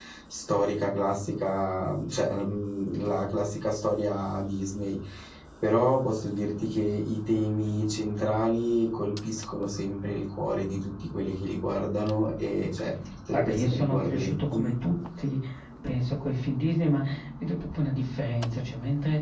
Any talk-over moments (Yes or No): Yes